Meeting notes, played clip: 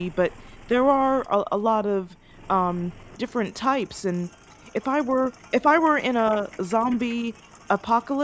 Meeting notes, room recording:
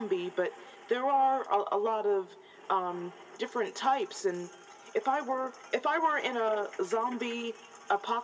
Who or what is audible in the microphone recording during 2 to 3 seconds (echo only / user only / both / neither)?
echo only